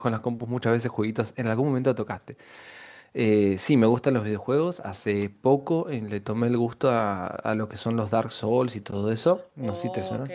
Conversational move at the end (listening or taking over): taking over